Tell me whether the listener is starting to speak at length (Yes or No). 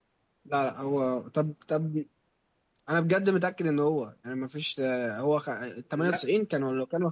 No